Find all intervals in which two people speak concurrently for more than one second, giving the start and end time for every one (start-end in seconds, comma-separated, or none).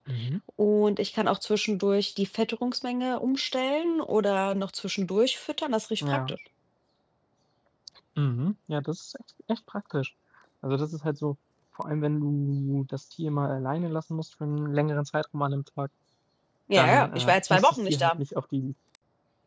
16.7-18.2